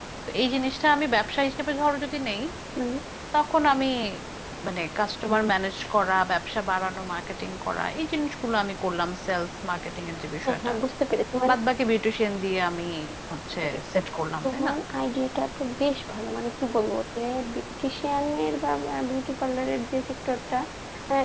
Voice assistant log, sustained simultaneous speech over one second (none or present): none